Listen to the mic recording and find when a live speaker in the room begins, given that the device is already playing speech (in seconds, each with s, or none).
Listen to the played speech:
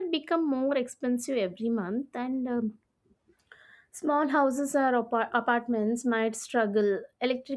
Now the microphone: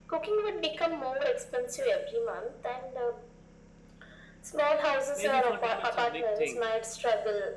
5.1 s